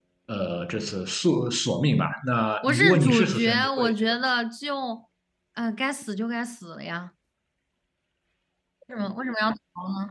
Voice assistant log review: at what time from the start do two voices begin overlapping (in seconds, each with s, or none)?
2.6 s